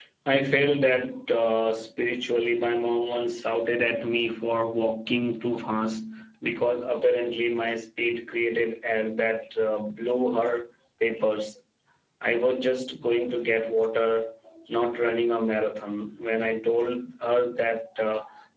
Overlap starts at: none

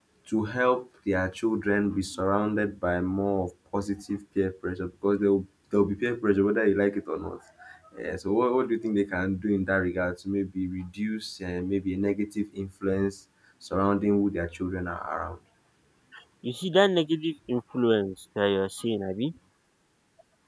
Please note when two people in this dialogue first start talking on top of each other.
none

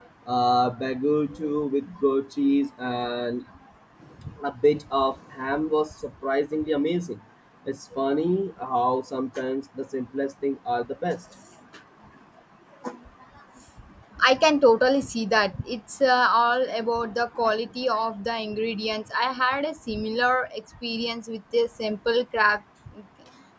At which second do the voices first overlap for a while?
none

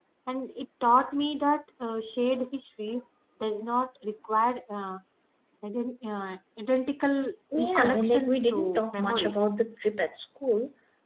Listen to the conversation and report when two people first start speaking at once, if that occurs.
7.5 s

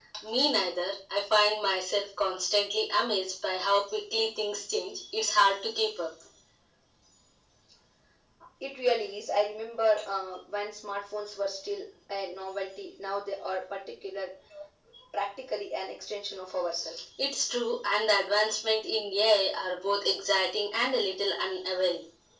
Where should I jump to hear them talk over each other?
none

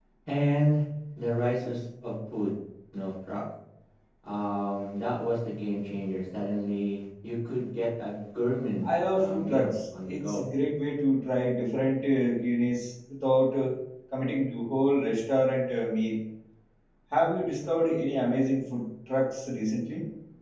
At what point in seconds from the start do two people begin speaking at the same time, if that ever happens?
8.8 s

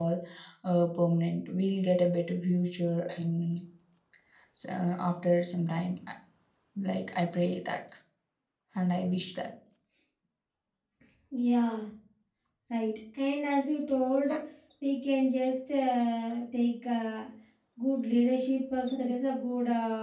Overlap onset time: none

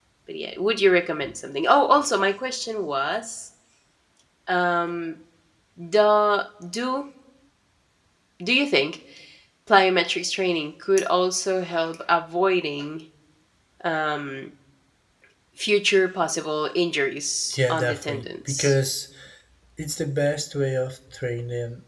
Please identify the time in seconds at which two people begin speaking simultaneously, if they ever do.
17.5 s

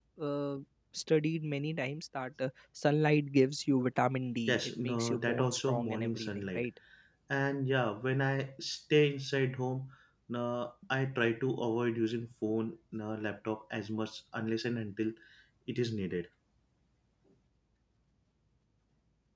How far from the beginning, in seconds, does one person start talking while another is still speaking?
4.5 s

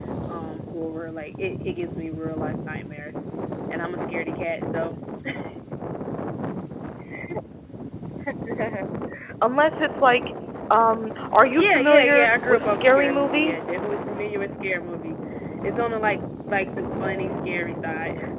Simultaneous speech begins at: 11.6 s

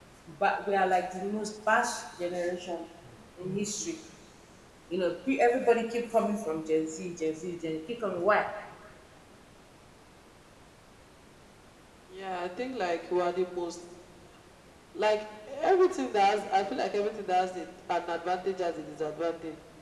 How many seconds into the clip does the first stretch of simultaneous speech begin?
none

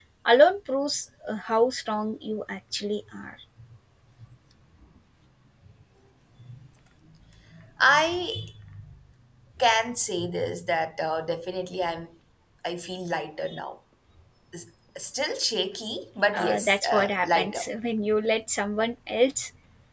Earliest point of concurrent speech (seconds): 16.3 s

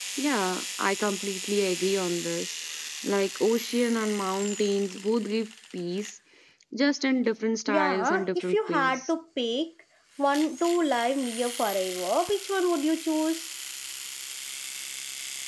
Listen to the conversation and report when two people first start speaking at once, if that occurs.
7.7 s

